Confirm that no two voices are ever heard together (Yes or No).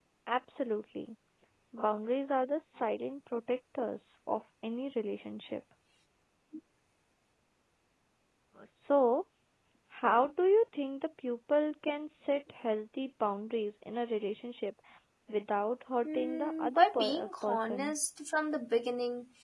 No